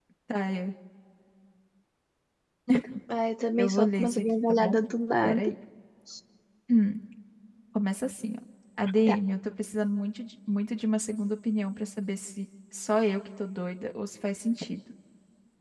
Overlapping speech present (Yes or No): Yes